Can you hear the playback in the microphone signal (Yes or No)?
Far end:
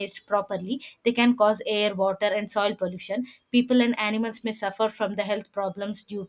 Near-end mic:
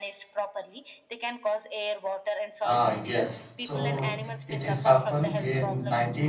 Yes